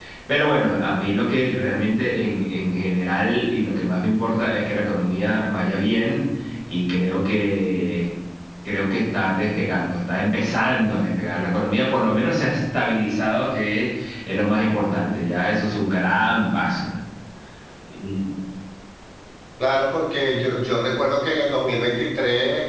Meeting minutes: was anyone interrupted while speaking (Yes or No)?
No